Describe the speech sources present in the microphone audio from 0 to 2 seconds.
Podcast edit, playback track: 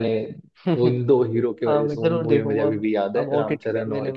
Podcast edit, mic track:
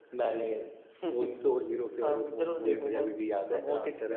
echo only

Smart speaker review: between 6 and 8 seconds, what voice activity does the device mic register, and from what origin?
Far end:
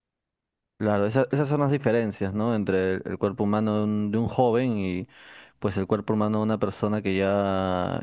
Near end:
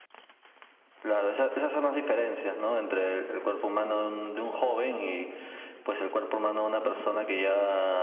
echo only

